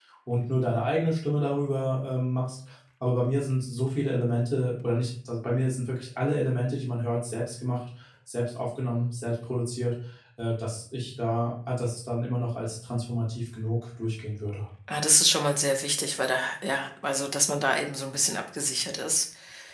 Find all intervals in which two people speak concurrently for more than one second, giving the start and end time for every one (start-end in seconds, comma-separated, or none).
none